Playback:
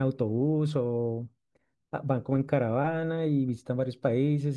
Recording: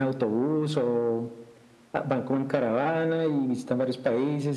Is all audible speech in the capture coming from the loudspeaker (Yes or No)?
Yes